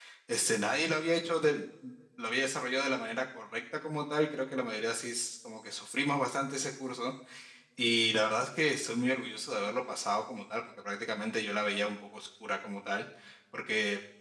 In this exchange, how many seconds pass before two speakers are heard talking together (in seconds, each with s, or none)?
none